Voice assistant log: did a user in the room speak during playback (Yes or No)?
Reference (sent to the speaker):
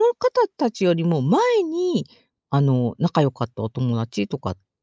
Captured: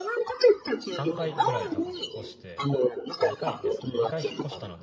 Yes